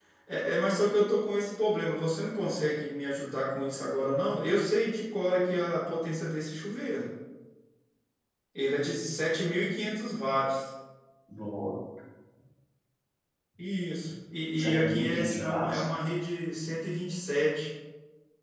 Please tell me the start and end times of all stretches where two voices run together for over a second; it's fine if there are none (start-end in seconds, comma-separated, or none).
14.6-15.9